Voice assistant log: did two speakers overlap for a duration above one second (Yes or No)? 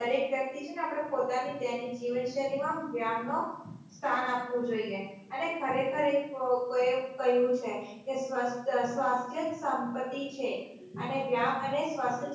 No